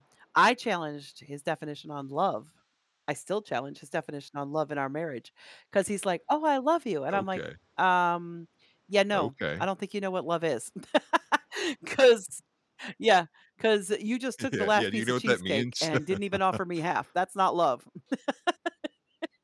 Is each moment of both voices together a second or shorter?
No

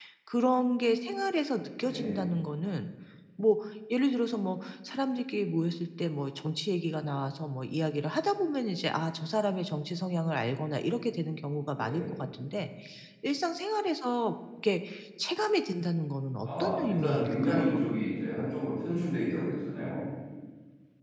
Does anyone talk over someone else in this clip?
Yes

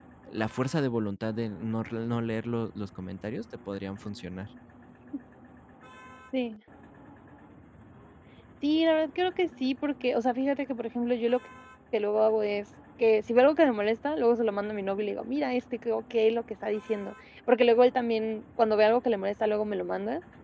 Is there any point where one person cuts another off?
No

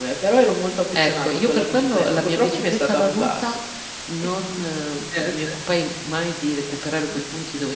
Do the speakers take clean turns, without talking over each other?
No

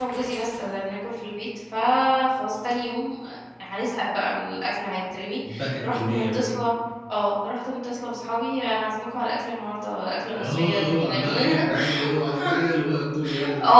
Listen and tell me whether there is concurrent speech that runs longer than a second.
Yes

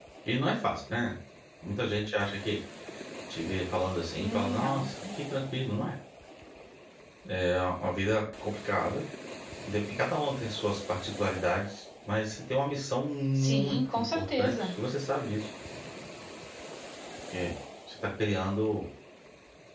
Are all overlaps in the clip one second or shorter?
No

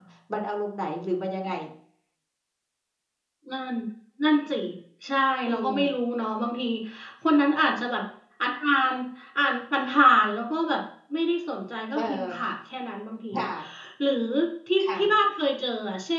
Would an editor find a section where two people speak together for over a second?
No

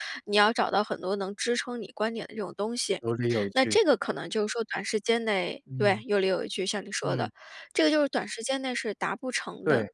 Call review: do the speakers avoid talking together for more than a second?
Yes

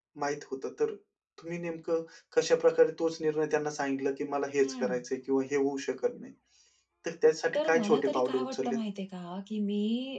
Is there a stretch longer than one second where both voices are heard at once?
Yes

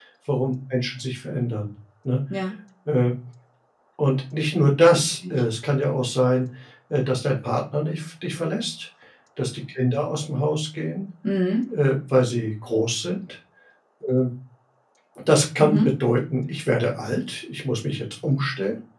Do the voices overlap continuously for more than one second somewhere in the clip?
No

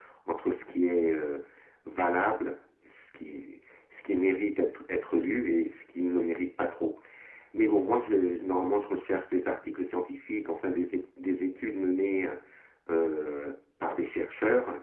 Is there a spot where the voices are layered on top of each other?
No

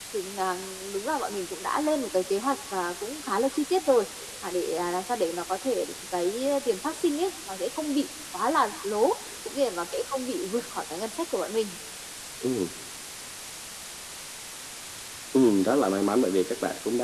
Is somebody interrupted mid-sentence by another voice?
No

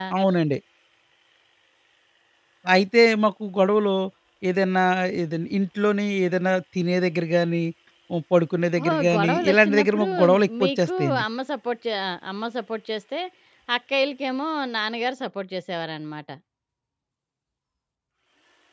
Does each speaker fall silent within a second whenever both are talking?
No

